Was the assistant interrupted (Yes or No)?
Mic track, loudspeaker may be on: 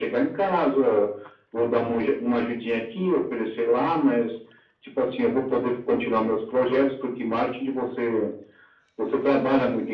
No